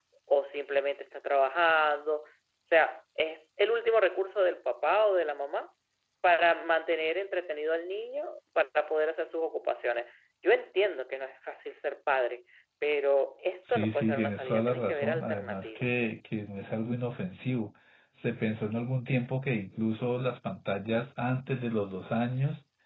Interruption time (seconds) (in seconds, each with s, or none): 13.6 s